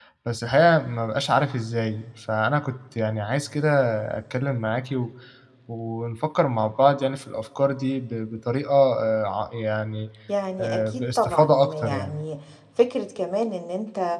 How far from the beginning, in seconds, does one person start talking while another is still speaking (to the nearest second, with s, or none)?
11 s